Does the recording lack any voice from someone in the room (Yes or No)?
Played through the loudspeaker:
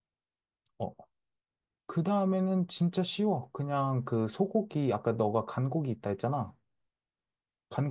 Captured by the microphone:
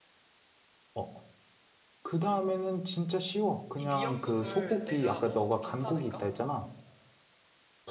No